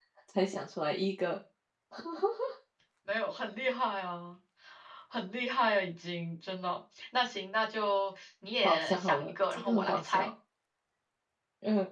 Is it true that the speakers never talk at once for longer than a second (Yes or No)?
No